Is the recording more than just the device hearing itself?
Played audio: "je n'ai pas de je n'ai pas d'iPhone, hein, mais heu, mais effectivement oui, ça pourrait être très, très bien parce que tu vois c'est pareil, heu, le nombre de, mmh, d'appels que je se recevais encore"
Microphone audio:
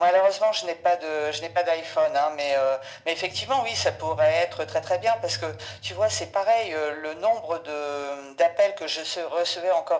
No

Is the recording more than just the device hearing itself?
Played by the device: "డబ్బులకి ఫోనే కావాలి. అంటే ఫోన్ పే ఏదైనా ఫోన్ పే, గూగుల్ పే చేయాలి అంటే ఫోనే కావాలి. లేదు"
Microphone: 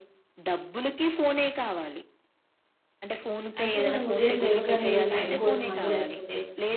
Yes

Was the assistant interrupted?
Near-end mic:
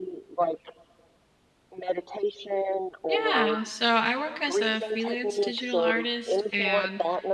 Yes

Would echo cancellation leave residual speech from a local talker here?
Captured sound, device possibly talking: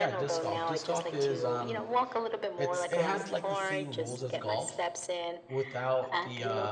Yes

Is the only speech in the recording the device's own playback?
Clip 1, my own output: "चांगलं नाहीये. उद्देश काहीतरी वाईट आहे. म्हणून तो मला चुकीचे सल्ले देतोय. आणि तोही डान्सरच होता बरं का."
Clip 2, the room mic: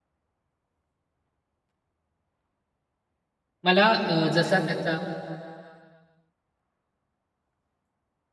No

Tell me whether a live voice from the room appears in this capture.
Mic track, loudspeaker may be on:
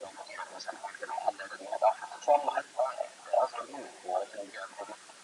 No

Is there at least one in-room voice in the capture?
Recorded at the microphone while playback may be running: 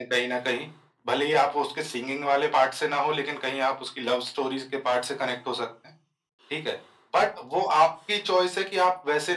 No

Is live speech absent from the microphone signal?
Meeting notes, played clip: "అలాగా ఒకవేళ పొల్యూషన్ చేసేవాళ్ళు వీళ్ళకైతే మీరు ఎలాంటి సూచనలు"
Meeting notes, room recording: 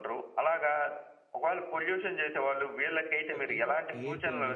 No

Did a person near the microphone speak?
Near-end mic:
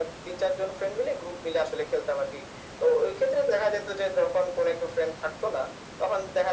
No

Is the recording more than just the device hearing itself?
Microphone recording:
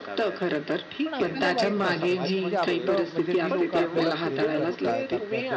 Yes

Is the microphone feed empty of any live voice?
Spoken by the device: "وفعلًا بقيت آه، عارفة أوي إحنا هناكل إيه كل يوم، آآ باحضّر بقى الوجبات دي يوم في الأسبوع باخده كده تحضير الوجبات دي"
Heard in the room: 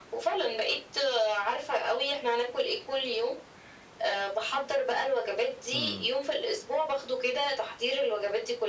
No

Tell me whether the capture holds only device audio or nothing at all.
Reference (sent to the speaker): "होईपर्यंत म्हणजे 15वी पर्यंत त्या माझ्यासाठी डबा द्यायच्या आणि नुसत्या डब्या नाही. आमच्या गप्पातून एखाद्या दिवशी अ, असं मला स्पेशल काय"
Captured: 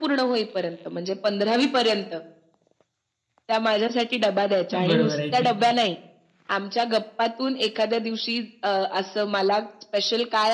No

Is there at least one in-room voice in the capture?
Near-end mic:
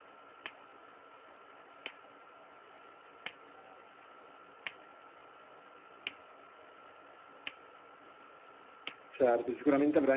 Yes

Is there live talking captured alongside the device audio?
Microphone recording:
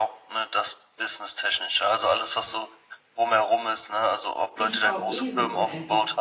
Yes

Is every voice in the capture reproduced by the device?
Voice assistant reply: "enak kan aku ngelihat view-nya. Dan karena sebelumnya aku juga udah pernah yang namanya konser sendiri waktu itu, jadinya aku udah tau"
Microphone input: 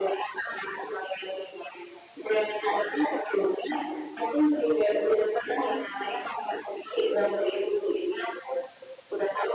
Yes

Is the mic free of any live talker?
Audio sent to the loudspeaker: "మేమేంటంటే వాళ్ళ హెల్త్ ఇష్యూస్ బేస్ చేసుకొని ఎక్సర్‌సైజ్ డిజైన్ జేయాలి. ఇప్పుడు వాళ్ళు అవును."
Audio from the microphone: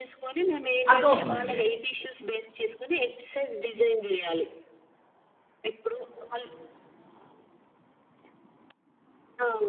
No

